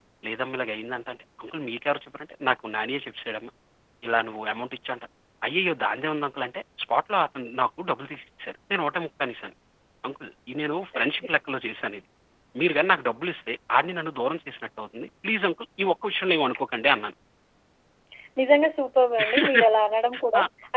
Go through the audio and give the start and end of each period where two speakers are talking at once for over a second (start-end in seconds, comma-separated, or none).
none